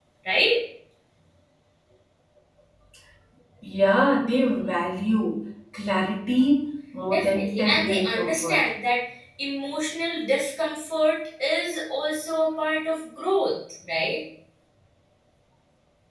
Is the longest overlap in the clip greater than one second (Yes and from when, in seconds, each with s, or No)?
Yes, from 7.1 s